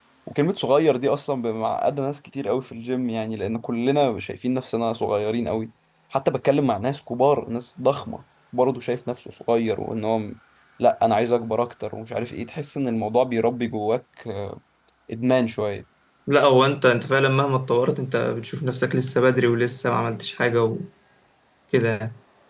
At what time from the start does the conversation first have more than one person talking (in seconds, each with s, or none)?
none